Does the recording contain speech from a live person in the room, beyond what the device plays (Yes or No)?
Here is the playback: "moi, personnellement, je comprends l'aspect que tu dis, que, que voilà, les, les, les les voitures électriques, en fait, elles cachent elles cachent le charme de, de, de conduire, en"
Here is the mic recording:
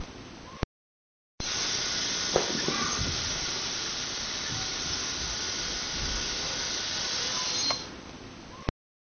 No